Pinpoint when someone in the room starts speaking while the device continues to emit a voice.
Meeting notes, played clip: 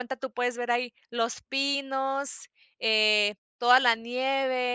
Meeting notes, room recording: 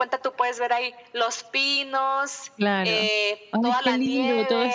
2.6 s

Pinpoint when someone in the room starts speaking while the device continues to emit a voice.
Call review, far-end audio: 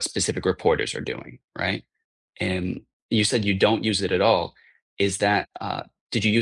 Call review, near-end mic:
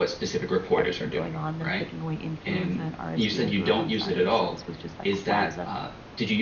0.8 s

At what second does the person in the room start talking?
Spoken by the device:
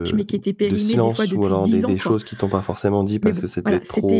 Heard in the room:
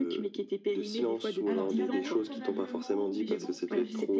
1.4 s

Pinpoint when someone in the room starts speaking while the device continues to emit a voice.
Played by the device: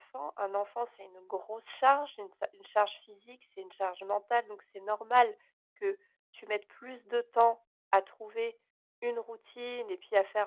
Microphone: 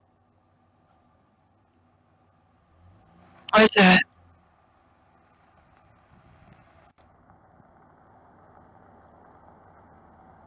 3.5 s

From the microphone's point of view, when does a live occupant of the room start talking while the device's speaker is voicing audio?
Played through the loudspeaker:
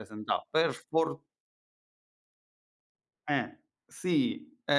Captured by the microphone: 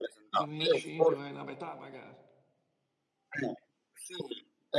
0.3 s

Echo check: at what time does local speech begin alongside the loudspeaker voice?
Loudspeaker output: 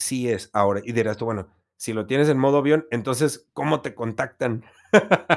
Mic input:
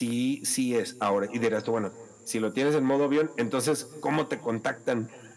none

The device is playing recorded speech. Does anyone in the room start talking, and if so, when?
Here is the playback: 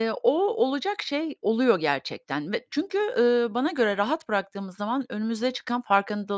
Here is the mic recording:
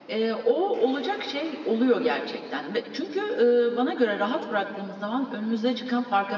none

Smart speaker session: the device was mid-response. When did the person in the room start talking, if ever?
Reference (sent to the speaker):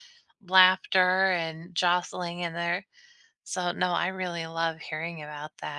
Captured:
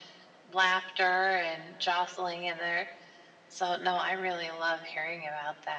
none

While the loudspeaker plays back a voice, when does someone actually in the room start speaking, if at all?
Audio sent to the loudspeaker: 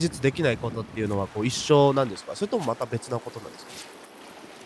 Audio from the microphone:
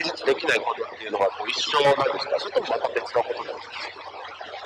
none

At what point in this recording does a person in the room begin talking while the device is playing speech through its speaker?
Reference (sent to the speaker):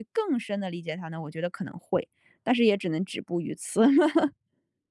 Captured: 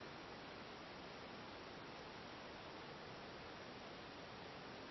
none

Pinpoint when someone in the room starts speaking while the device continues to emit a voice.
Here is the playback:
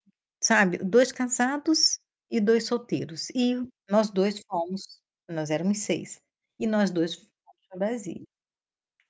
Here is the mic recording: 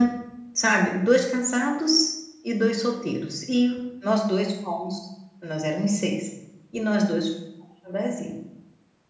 none

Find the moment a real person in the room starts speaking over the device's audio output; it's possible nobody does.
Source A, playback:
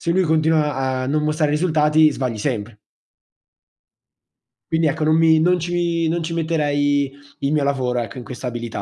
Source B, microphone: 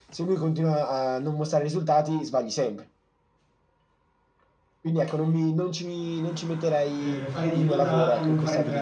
6.9 s

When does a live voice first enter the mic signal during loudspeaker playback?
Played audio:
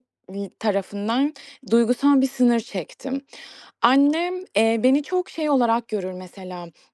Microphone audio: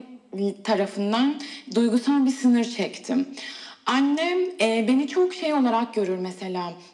none

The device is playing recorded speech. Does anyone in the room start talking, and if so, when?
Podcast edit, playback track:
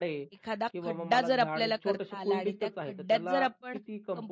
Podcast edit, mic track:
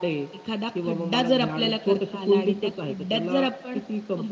none

